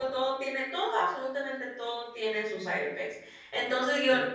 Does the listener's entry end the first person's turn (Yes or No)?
No